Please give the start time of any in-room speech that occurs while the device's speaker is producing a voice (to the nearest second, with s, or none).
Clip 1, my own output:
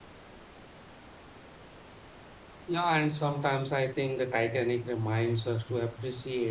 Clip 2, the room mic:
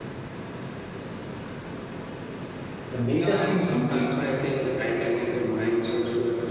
3 s